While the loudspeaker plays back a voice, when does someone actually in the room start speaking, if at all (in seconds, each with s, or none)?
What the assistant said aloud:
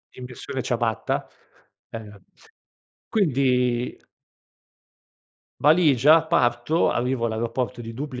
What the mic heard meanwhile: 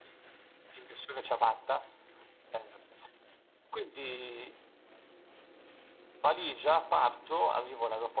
none